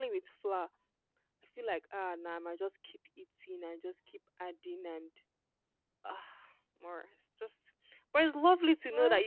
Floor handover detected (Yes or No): No